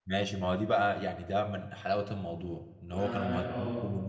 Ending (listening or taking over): listening